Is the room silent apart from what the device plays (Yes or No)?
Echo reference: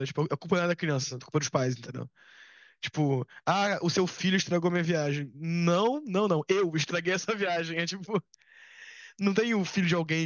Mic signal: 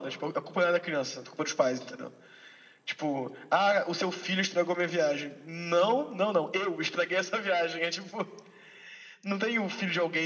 Yes